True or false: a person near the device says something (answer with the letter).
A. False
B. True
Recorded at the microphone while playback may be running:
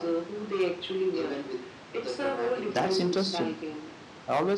B